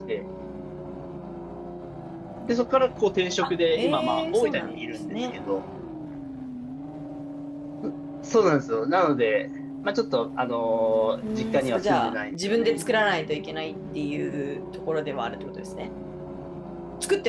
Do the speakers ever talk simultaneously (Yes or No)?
Yes